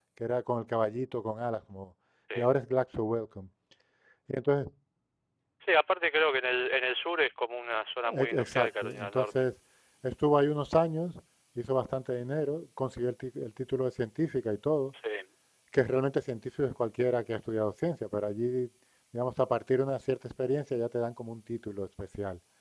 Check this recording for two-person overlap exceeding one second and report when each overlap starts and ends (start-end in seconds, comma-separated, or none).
8.2-9.5